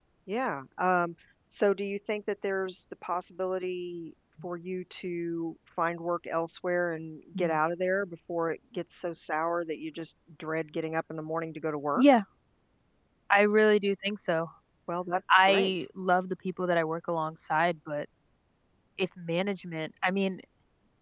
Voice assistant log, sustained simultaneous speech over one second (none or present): none